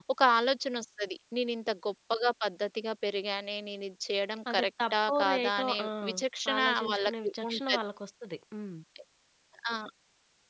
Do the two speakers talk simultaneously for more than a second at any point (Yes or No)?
Yes